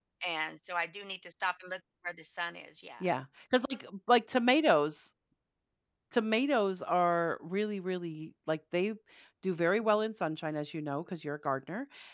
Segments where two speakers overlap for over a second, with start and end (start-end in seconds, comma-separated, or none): none